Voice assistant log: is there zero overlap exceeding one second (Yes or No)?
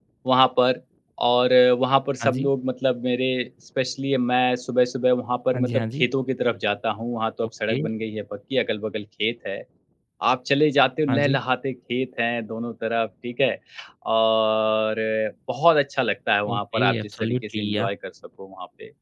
No